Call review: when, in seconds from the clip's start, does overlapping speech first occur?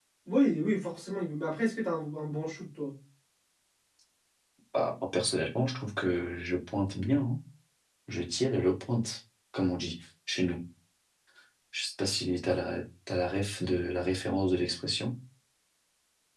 none

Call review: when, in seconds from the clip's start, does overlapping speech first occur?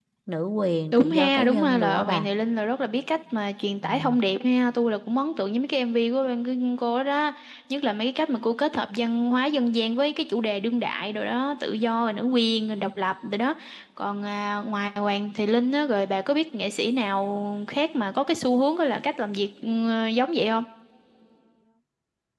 1 s

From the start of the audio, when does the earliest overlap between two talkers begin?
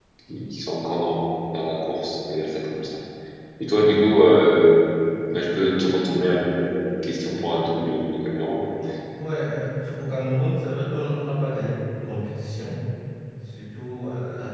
none

